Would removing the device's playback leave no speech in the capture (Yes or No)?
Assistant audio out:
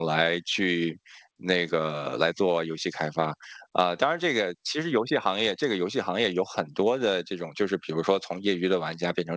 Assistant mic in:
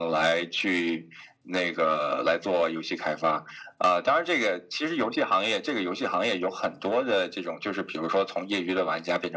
Yes